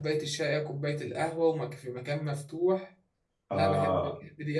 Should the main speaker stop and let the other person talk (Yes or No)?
Yes